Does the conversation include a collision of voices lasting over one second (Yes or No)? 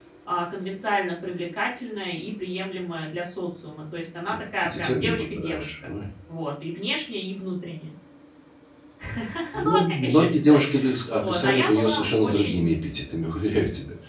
Yes